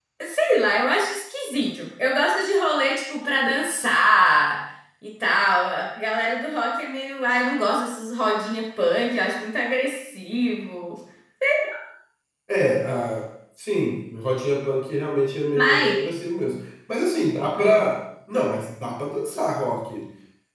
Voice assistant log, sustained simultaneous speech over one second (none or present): none